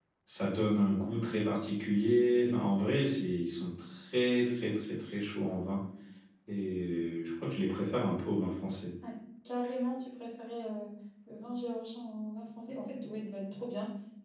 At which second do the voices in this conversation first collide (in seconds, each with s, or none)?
none